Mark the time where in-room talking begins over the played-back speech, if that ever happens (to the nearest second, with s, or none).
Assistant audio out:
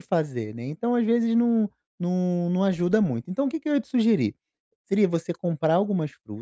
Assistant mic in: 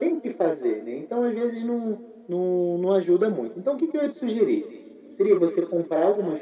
none